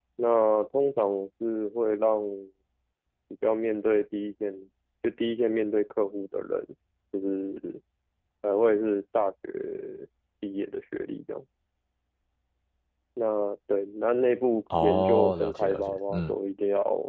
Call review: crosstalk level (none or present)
present